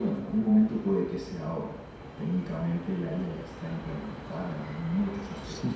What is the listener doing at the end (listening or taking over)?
taking over